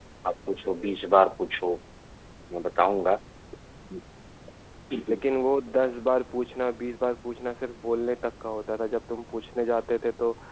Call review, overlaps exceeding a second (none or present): none